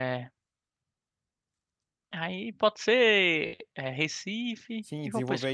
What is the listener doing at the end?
taking over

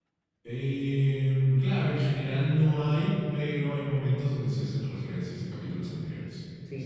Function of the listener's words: taking over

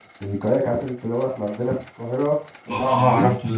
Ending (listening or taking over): taking over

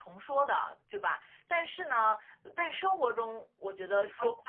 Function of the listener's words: listening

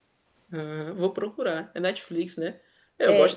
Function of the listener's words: listening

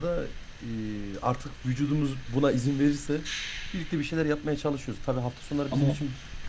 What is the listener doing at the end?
listening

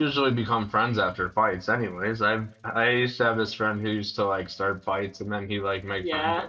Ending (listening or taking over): taking over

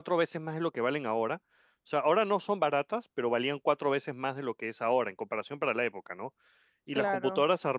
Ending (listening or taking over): listening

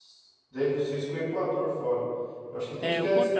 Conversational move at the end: taking over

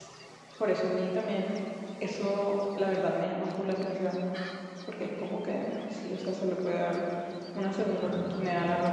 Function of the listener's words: taking over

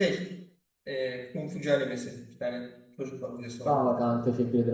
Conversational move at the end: taking over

